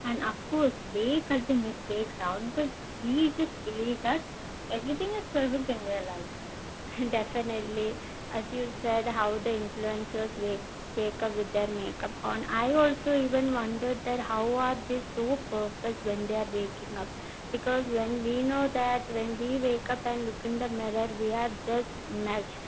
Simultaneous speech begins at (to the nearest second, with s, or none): none